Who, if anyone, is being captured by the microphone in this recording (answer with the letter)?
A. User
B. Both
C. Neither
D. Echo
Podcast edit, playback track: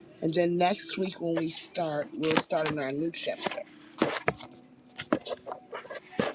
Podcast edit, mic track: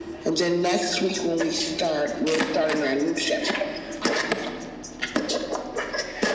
D